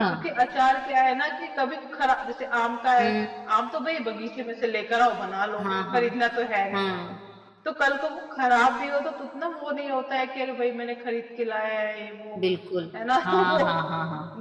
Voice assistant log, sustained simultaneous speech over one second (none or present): none